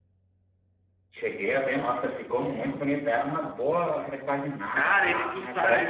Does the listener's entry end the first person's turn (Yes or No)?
Yes